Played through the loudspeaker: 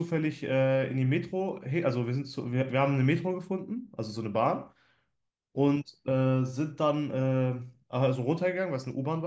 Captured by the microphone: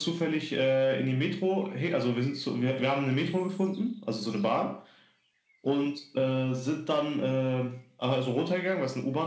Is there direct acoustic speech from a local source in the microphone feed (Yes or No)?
No